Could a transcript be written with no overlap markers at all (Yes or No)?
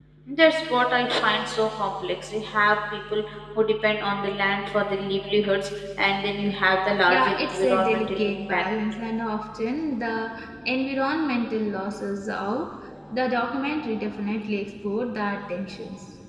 No